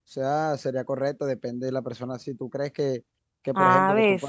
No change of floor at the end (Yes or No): Yes